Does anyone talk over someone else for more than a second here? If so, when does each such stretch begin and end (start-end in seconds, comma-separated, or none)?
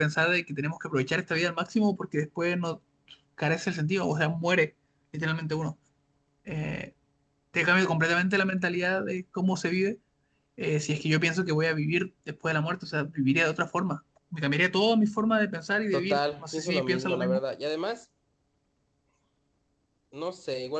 15.9-17.4